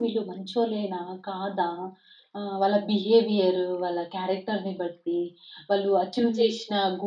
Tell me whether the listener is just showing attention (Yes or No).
Yes